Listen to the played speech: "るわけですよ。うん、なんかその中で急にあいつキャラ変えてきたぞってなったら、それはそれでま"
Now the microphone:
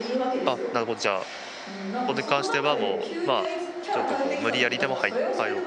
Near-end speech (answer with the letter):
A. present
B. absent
A